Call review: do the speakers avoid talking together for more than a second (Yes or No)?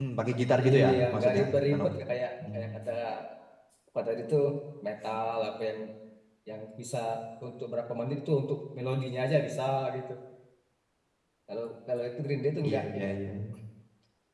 No